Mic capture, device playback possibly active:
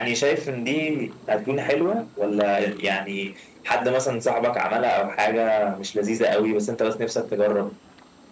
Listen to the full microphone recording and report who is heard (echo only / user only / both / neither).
echo only